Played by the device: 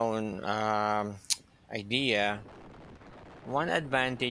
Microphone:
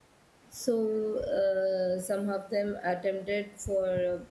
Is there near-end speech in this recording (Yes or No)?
Yes